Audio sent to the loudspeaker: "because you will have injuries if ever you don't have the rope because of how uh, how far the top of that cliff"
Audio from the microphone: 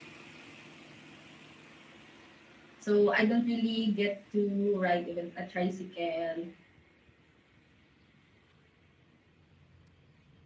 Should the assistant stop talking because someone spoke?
Yes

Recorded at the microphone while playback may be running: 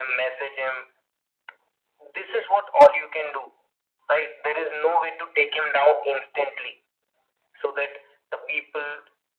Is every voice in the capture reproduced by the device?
Yes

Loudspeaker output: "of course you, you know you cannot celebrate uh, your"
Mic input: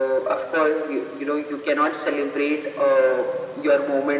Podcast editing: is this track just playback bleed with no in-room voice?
Yes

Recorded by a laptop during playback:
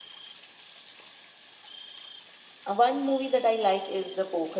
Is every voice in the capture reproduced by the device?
No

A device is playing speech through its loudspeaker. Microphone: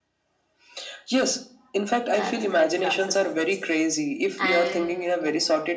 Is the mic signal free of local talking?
No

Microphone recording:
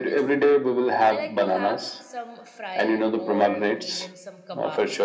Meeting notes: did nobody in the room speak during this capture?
No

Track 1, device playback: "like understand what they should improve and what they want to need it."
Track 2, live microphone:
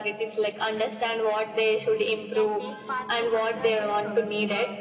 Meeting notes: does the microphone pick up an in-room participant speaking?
Yes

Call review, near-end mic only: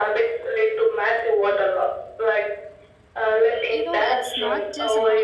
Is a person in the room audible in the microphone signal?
Yes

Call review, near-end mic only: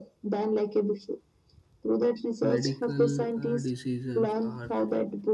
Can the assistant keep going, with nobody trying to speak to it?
No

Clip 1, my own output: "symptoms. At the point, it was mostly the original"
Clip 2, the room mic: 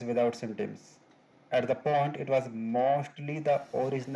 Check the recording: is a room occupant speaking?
No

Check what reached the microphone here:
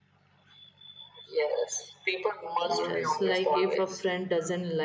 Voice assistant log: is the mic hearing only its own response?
No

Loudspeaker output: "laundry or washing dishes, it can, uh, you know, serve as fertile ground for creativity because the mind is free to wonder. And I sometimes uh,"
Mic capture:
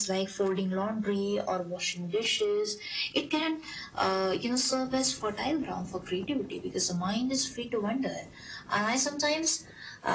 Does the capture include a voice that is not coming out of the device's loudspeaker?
No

